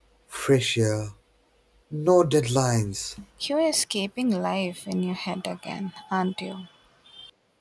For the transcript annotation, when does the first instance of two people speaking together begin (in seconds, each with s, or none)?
none